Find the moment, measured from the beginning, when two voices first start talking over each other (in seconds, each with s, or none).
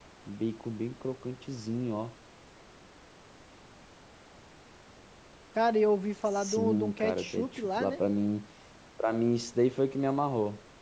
6.3 s